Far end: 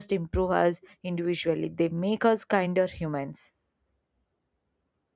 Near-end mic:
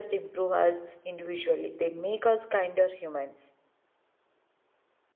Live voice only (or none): none